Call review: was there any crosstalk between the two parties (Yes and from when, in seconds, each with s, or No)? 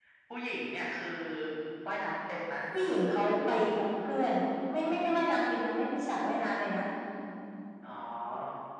No